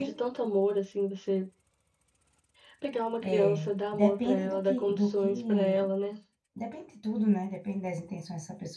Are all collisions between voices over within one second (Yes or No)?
No